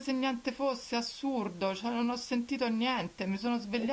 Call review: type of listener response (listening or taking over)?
listening